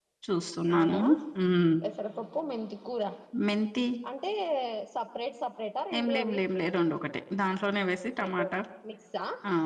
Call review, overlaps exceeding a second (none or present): none